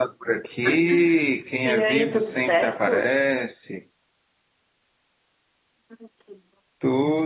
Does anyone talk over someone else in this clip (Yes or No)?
Yes